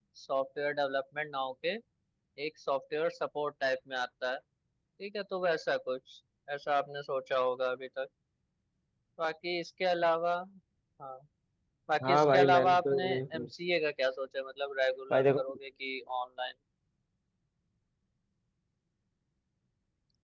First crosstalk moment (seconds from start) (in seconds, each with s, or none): 12.0 s